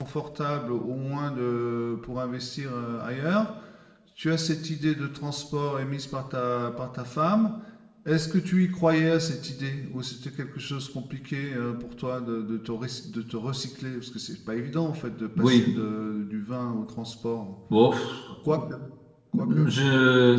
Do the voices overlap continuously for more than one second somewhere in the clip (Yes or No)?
No